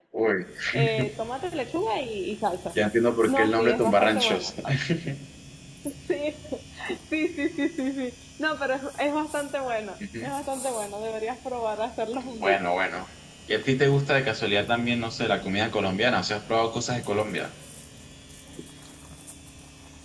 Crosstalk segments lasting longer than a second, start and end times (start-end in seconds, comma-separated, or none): 3.3-4.5